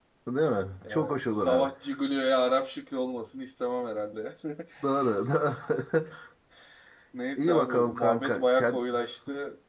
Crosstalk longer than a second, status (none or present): present